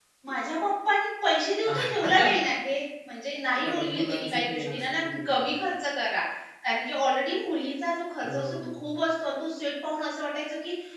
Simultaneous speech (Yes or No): Yes